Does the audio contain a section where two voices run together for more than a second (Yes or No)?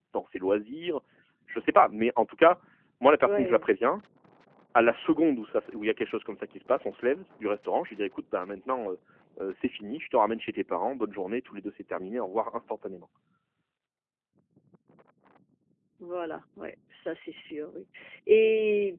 No